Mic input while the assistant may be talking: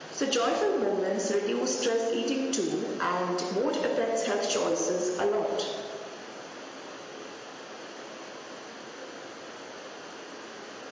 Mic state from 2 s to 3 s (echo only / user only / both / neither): echo only